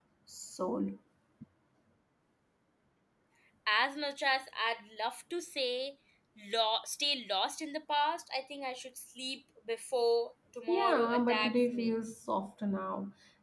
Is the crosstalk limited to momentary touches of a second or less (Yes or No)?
No